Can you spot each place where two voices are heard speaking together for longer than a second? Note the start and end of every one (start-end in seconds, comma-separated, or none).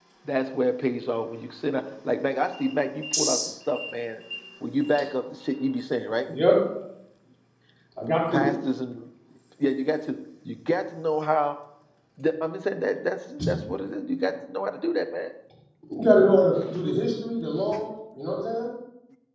none